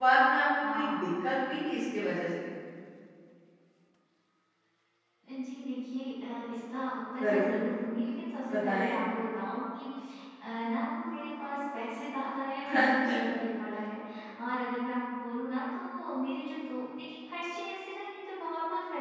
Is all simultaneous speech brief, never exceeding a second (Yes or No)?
Yes